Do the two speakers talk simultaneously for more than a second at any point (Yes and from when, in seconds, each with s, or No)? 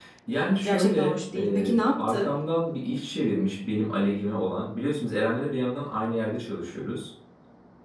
Yes, from 0.6 s